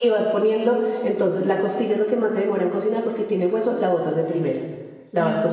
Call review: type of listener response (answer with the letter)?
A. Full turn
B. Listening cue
B